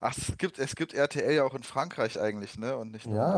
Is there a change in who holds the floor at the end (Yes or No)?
Yes